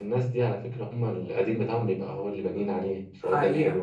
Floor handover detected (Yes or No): Yes